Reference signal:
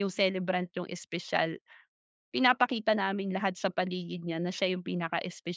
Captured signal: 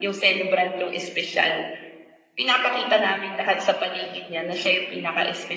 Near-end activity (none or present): none